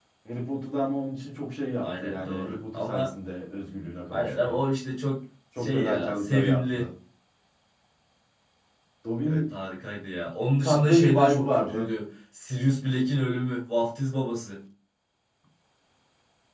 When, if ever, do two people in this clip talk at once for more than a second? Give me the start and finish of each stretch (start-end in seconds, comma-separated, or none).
1.8-3.1, 5.6-6.9, 10.6-11.9